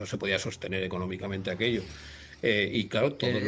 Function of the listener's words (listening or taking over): taking over